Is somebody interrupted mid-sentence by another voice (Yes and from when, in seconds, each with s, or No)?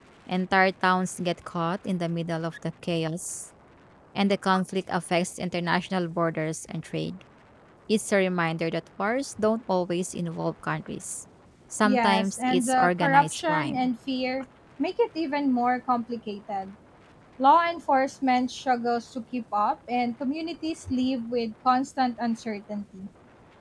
Yes, from 11.8 s